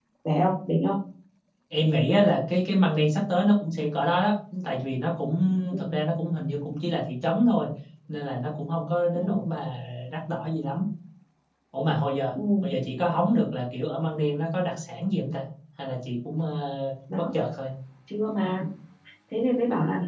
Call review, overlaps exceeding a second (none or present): none